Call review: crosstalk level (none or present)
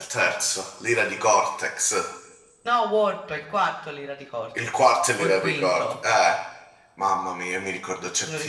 present